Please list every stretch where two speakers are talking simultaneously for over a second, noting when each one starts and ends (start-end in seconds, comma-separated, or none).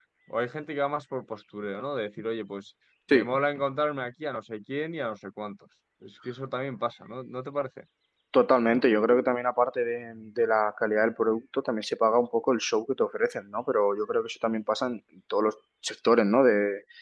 none